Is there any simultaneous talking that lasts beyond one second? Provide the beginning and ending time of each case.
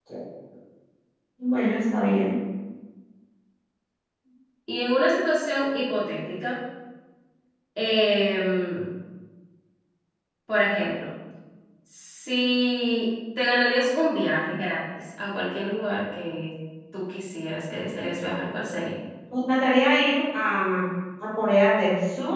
none

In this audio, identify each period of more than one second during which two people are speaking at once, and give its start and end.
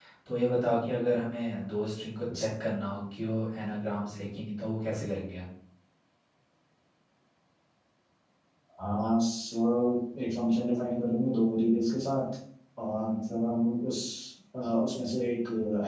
none

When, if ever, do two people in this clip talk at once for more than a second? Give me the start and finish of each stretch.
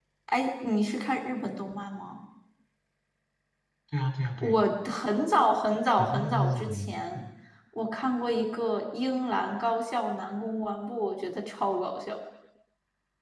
6.0-7.2

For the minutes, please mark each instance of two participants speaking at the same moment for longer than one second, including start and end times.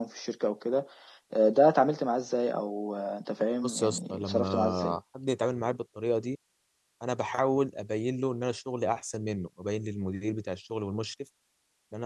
3.6-5.0

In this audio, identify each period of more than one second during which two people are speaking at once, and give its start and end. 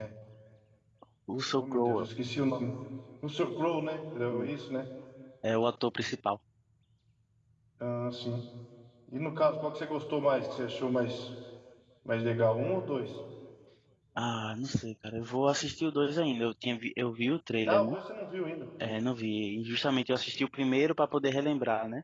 none

